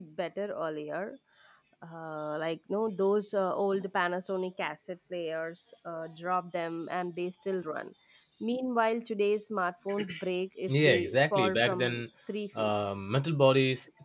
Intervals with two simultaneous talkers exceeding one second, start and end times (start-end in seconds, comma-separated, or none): 10.7-12.0